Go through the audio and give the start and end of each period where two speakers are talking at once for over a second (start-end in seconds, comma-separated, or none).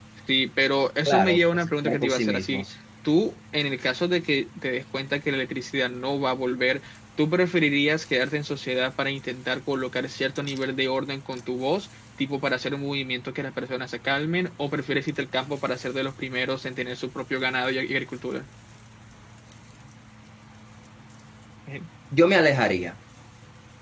1.1-2.6